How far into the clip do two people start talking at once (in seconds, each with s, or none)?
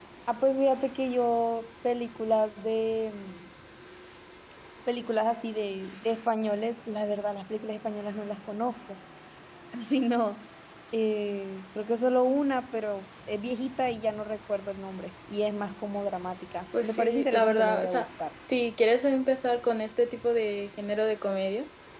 16.7 s